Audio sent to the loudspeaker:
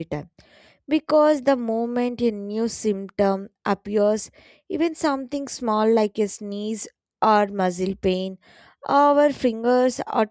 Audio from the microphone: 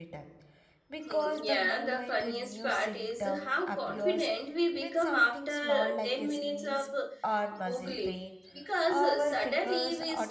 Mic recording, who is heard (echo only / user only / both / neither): both